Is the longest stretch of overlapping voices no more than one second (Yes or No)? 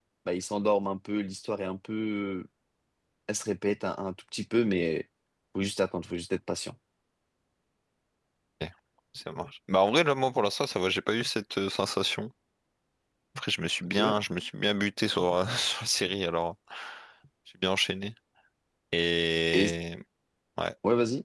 Yes